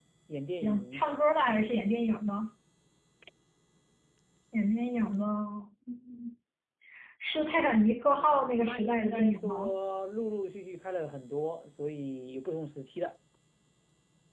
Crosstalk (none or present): present